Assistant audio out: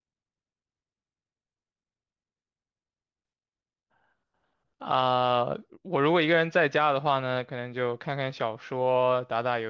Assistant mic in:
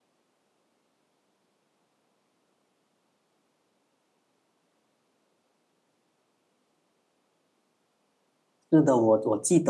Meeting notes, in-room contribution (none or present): present